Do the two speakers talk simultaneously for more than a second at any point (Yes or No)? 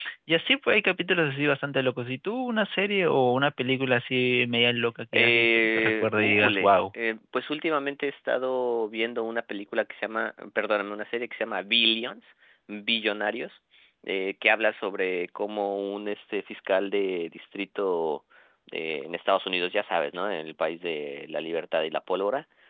Yes